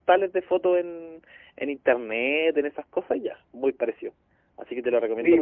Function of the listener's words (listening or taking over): taking over